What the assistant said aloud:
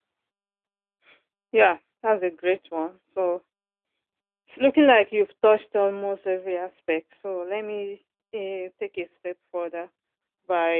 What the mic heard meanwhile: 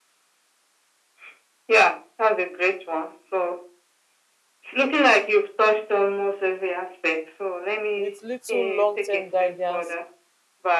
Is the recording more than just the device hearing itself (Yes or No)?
Yes